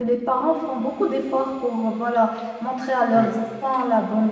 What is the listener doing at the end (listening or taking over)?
listening